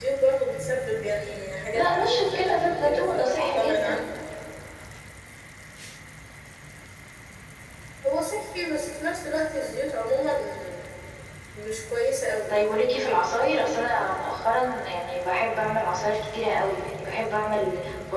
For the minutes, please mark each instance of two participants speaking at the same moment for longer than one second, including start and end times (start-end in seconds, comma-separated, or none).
1.7-4.0